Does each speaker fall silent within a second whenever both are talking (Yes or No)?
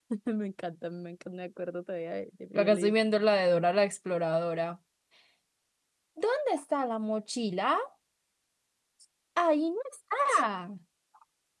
Yes